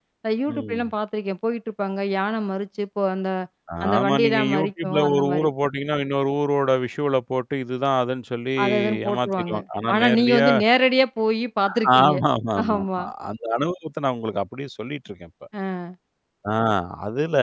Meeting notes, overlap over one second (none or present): present